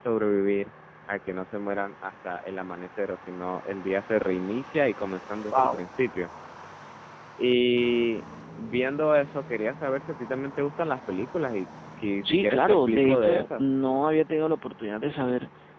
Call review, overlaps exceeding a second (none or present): present